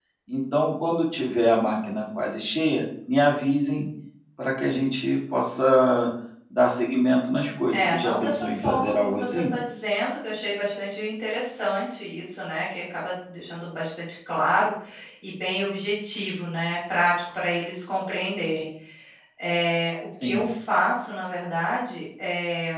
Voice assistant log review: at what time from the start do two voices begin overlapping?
7.7 s

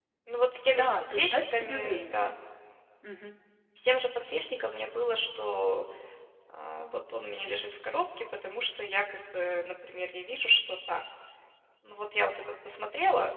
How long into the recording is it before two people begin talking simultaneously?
0.7 s

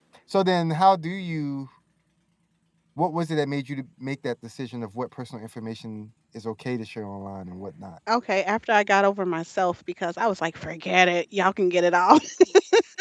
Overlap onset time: none

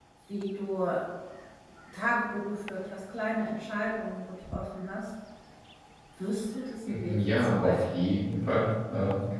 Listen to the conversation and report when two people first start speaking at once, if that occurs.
6.9 s

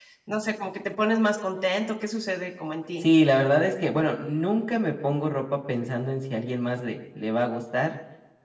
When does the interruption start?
none

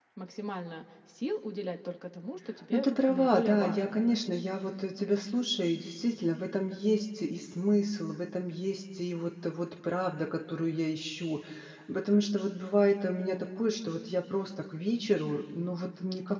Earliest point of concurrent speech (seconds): 2.7 s

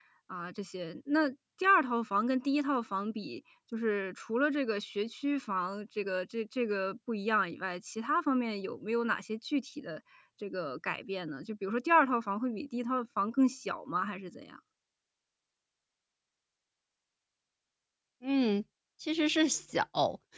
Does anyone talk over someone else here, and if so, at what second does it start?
none

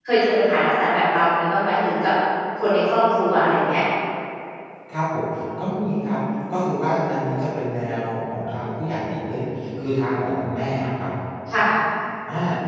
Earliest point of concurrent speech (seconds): none

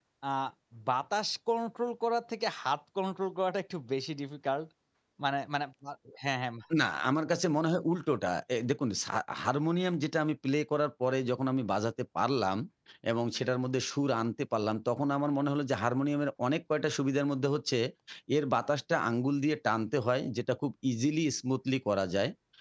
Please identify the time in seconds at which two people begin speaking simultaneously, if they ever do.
none

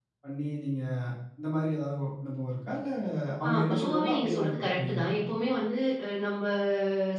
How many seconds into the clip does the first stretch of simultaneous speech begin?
3.5 s

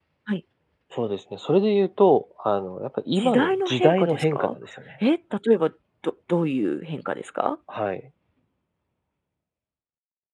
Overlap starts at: 3.2 s

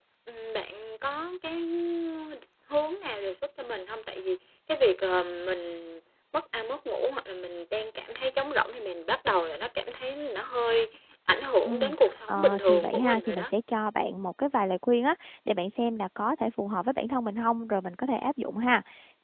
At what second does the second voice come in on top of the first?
11.7 s

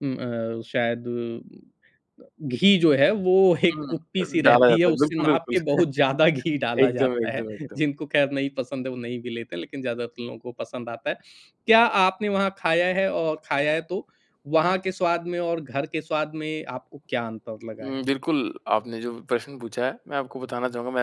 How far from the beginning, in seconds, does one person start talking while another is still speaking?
3.7 s

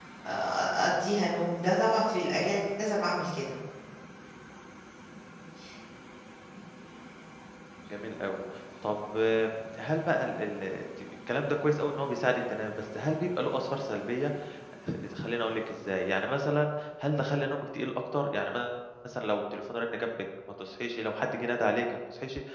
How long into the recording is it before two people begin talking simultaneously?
none

